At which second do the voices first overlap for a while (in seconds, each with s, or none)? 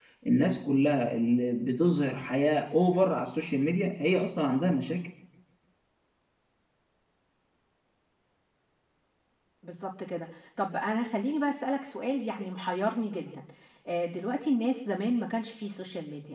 none